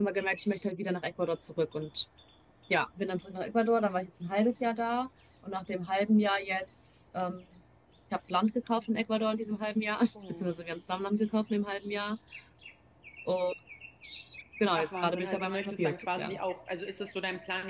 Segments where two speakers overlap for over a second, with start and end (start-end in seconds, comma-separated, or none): 14.7-16.4